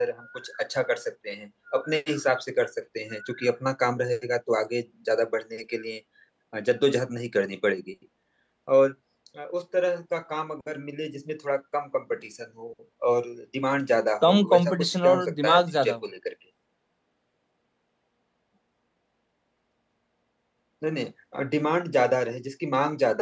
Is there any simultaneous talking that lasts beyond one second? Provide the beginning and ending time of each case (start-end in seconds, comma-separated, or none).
14.2-15.9